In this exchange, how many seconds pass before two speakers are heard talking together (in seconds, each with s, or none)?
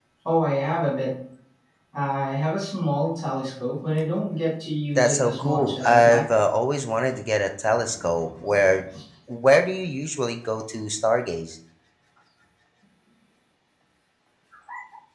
5.0 s